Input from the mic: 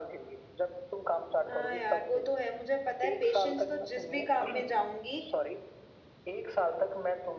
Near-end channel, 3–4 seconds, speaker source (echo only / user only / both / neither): both